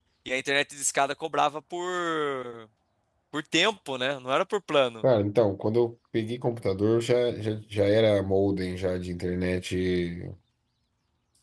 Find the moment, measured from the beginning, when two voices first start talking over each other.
none

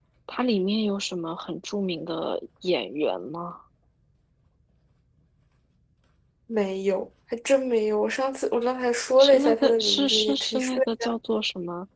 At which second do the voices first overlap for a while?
9.2 s

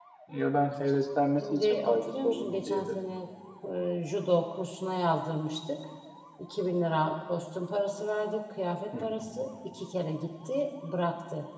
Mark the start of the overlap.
1.4 s

